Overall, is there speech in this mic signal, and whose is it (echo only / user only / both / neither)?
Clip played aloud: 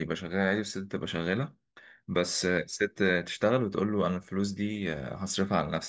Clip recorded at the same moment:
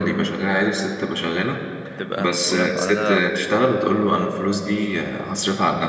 both